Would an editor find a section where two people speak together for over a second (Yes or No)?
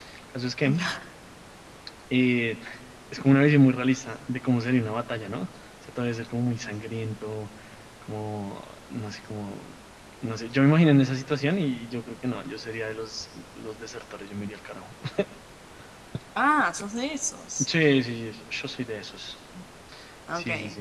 No